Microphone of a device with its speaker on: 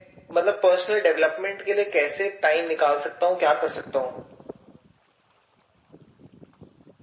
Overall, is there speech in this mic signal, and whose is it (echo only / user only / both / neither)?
echo only